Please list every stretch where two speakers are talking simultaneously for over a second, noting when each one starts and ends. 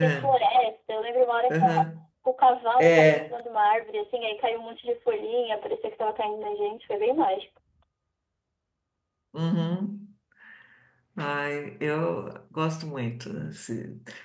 none

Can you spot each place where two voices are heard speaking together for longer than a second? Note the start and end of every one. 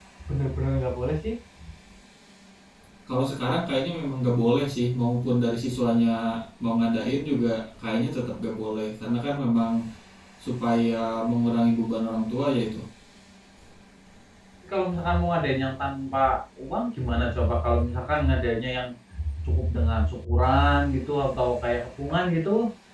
none

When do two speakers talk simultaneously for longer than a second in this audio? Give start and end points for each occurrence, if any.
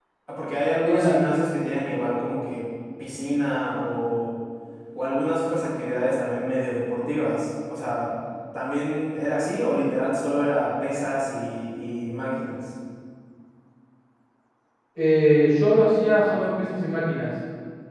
none

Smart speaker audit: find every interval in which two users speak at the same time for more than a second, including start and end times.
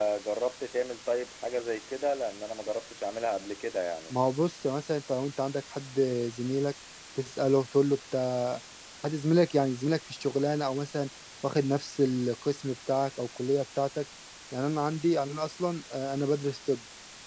none

